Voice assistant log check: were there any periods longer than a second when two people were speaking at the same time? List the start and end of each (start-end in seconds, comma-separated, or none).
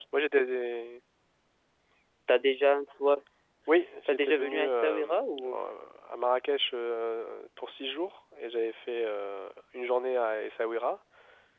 4.1-5.6